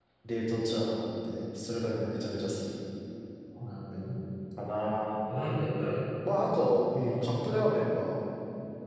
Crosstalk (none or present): none